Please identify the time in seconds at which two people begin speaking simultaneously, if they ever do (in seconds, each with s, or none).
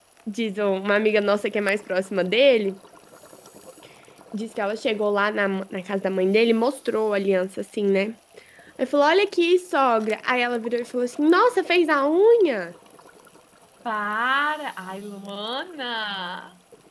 none